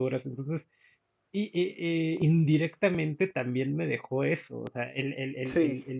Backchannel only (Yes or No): Yes